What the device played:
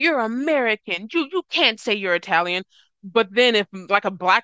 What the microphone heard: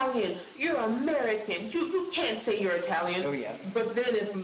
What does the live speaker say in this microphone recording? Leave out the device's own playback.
Oh yeah.

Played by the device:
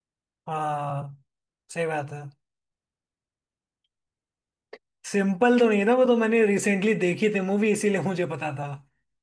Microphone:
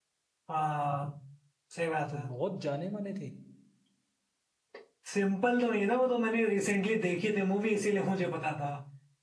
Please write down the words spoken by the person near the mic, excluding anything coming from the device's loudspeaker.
अच्छा बहुत जाने माने थे

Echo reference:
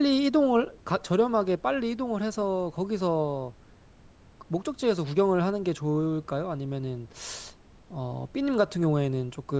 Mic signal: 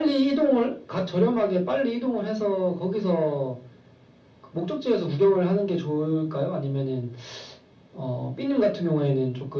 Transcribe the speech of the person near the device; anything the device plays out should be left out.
none

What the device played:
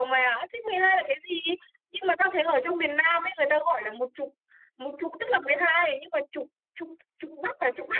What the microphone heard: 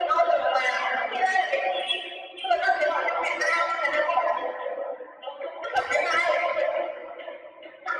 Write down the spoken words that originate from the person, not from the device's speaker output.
none

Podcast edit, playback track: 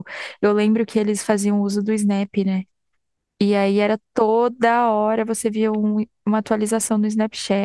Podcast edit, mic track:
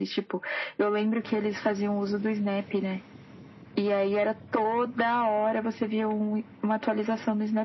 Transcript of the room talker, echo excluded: none

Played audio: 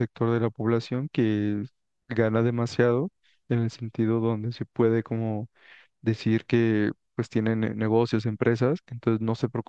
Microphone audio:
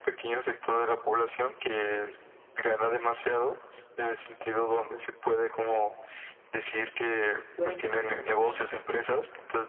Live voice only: fuera en declive realmente.

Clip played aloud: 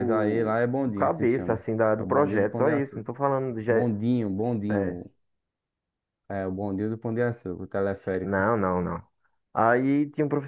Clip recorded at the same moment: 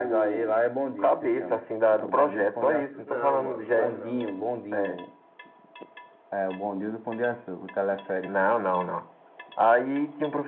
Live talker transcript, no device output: Não, mano, não é não.

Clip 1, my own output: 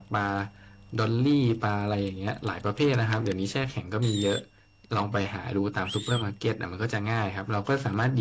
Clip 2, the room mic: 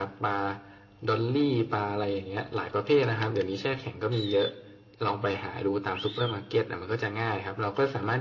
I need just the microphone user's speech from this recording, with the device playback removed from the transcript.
none

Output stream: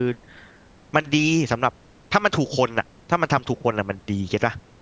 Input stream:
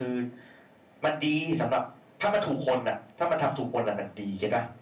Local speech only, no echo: none

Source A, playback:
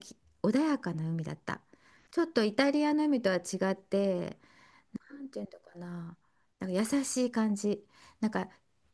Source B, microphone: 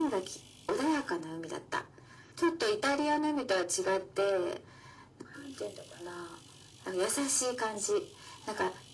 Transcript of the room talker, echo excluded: none

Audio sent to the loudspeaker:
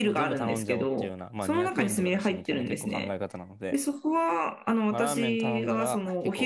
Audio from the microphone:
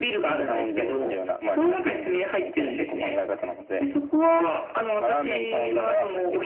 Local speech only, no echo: none

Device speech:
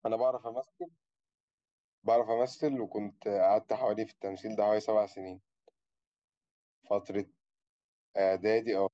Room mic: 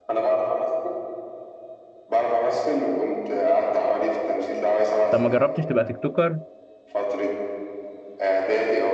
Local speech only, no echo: طب ما جربتش تبقى تيك توكر

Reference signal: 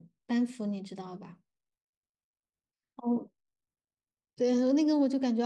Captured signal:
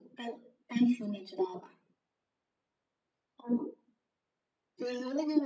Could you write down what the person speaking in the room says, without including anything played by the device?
none

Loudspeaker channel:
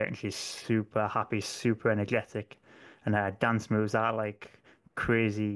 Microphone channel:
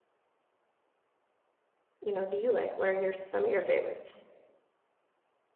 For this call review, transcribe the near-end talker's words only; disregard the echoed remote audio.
you know, do you like? What are your some of your favorites?

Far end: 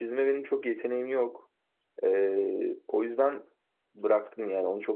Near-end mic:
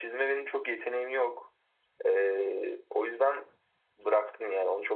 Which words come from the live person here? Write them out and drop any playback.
none

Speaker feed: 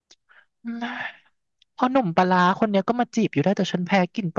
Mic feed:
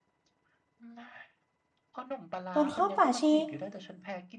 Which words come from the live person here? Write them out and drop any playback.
โดนข้อบฝาชี

